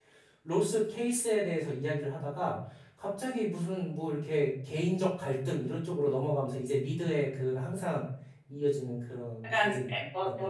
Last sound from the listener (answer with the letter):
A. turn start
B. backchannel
A